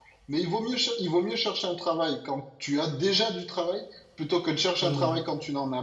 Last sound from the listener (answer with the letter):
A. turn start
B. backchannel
B